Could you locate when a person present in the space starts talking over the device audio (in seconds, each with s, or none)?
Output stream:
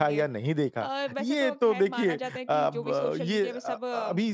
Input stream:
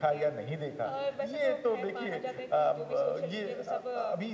none